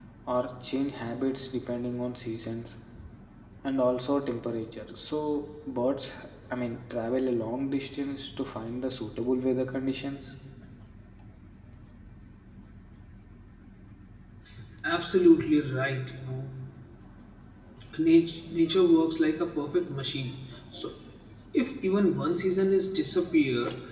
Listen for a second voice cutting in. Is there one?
No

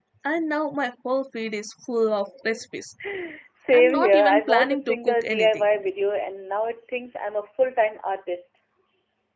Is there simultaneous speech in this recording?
Yes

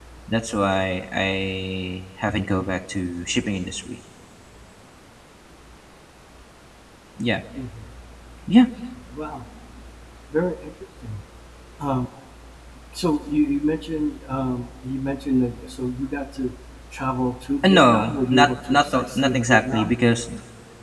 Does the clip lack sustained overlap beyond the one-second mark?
No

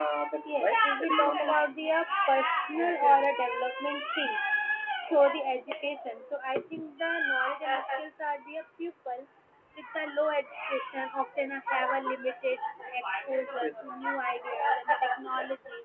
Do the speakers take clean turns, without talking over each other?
No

